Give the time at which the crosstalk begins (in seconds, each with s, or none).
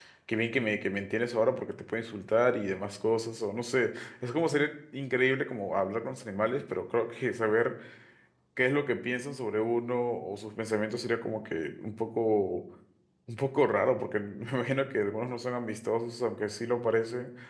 none